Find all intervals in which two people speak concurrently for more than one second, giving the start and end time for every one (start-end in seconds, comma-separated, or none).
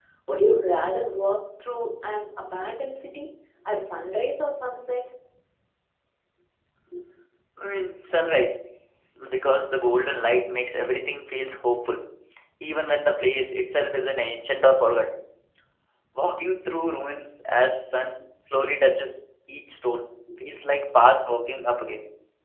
none